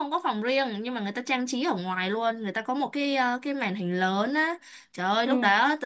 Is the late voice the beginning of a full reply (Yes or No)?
No